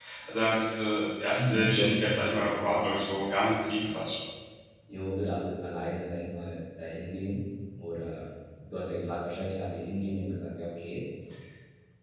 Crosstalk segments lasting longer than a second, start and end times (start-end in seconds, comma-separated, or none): 1.3-4.0